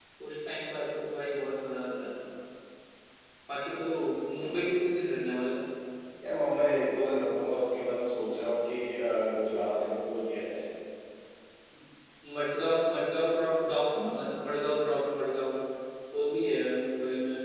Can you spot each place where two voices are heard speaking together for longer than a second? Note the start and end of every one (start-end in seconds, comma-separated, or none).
none